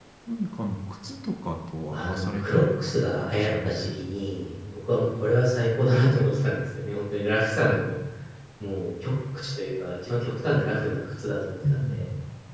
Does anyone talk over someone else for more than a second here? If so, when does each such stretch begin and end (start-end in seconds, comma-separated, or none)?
1.9-3.8